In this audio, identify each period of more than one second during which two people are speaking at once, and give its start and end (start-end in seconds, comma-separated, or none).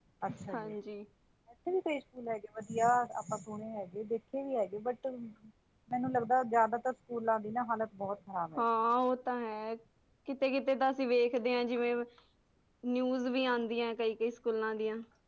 none